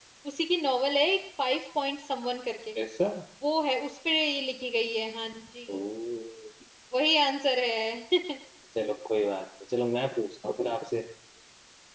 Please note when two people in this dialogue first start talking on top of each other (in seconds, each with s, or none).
none